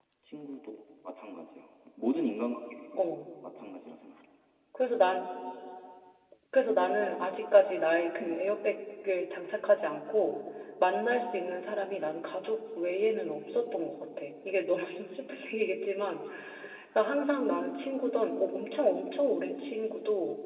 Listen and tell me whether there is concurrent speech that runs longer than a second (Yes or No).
No